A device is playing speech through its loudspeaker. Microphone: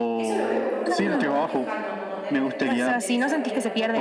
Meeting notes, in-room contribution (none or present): present